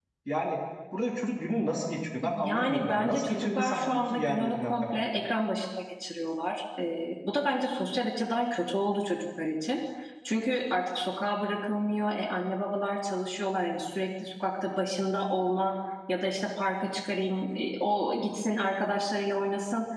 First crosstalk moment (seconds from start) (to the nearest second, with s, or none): 2 s